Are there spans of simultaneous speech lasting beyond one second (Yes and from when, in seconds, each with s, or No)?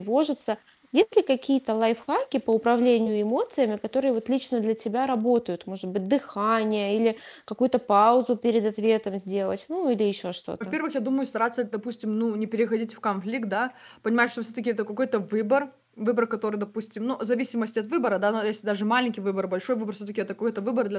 No